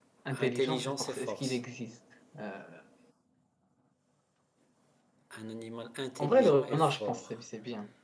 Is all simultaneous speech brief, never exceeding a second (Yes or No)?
No